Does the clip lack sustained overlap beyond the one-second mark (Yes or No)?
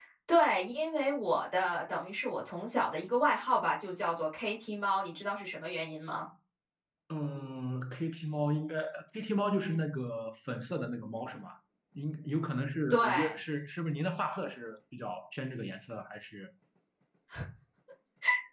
Yes